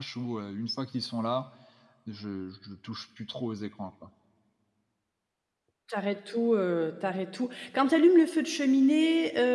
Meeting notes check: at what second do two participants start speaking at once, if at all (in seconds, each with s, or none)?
none